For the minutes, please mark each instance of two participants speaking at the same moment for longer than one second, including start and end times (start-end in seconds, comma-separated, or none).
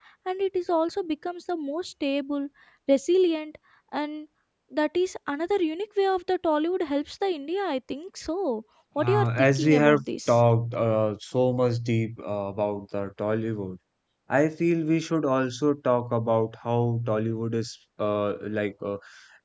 9.0-10.4